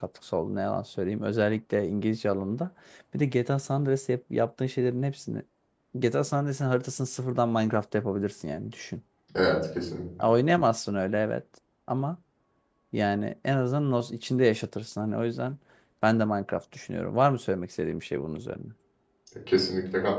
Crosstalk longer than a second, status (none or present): none